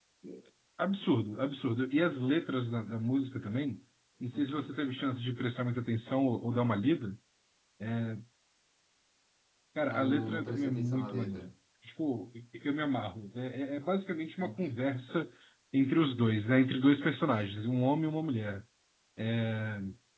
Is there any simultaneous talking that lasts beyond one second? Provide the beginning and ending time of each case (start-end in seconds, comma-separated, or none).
9.9-11.4